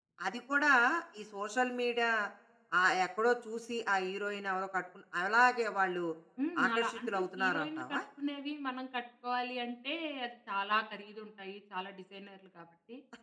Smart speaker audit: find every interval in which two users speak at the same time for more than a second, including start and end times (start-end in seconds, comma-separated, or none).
6.7-8.0